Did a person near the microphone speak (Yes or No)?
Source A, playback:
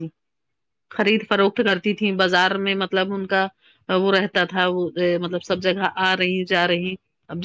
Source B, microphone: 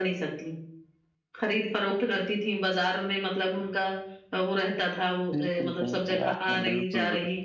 Yes